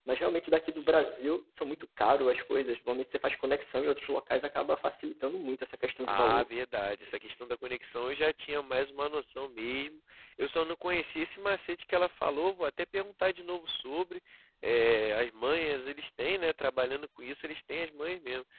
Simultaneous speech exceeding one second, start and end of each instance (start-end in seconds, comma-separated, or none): none